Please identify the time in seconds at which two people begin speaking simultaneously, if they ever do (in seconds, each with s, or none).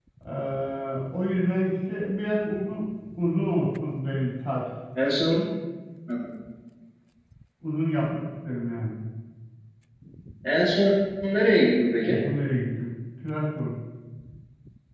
none